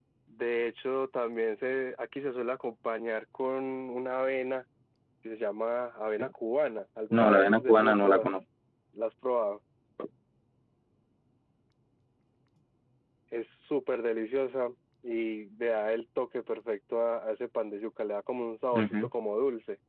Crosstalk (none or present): present